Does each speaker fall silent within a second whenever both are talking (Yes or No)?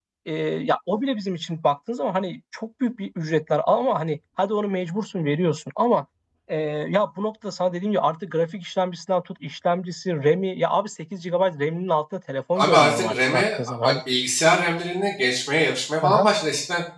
No